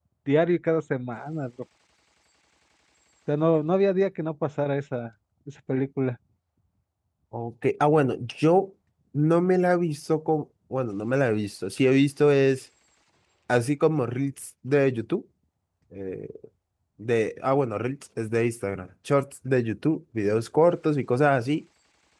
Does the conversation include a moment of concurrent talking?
No

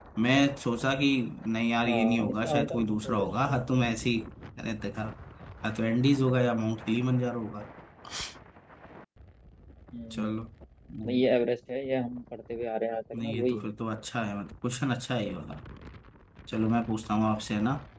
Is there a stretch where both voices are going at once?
Yes, from 1.8 s

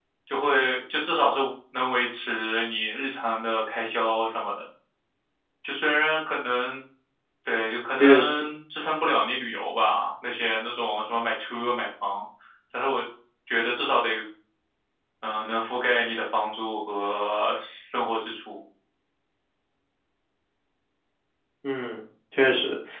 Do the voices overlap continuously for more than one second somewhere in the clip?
No

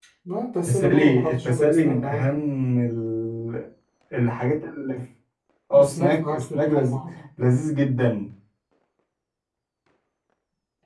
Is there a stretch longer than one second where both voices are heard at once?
Yes, from 0.7 s

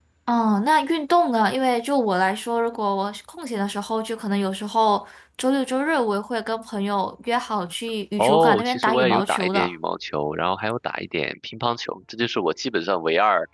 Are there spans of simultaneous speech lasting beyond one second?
Yes, from 8.2 s

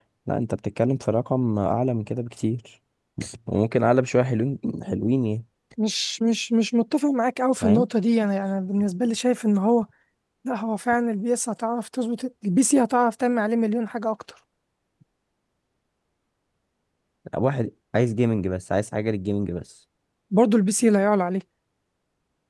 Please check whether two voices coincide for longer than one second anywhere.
No

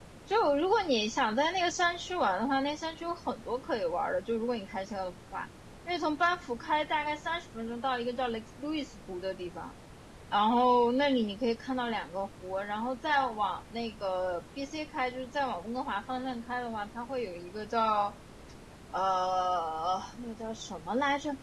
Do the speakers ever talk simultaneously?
No

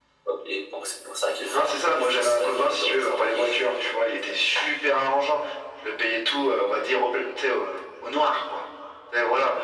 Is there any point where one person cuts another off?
Yes, from 1.5 s

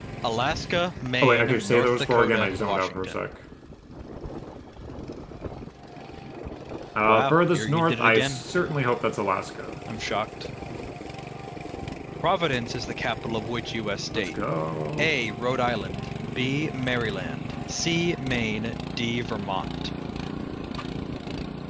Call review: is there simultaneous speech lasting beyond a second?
Yes, from 1.2 s

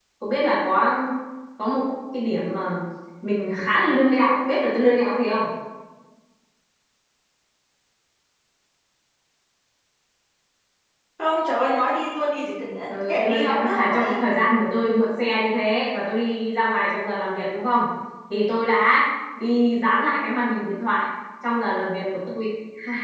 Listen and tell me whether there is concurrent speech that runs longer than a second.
Yes, from 12.9 s

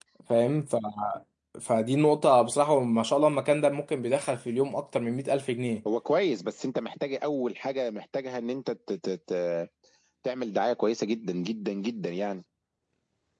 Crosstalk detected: No

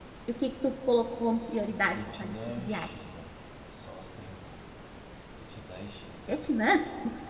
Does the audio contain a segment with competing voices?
Yes, from 1.7 s

